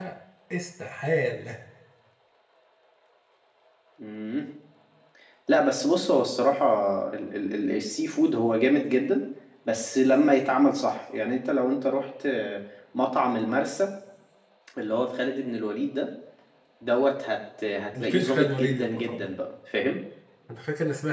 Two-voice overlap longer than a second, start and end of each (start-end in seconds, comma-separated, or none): 18.0-19.3